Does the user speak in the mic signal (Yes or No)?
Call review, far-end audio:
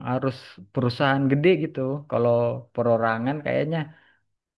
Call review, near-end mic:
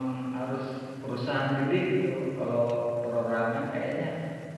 No